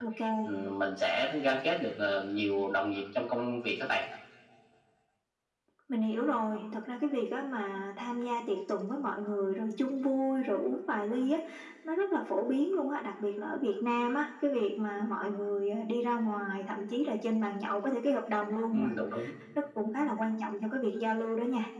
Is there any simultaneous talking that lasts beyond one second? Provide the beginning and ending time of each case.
none

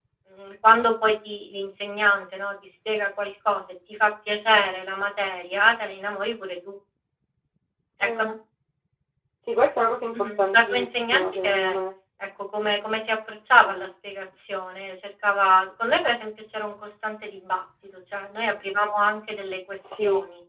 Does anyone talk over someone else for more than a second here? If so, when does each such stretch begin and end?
10.1-11.8

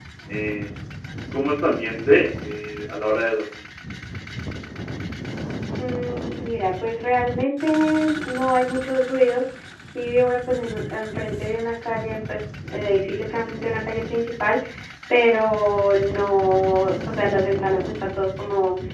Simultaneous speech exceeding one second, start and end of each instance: none

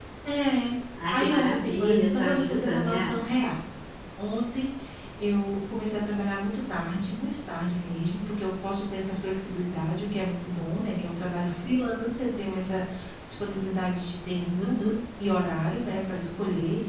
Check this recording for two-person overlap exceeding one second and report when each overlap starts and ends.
1.1-3.0

